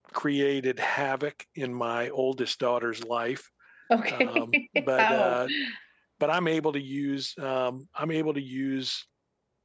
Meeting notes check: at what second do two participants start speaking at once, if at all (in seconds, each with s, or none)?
4.1 s